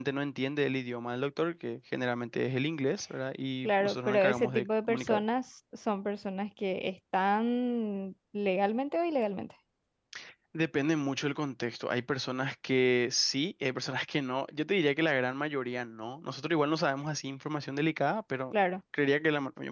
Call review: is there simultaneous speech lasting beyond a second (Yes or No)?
Yes